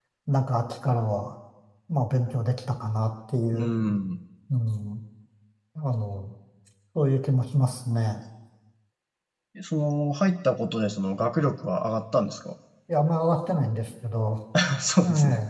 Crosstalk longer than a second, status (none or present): none